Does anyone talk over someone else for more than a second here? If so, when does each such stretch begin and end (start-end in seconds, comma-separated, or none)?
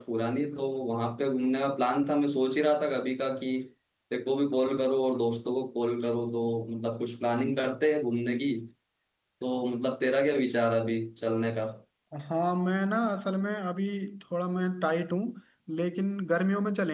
none